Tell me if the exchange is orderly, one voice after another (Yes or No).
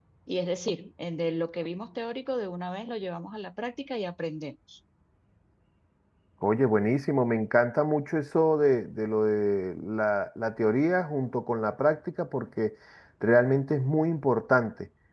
Yes